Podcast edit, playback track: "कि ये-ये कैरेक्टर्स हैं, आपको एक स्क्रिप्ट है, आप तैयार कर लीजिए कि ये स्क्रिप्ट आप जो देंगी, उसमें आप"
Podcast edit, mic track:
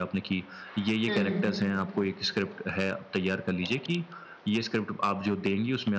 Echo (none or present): present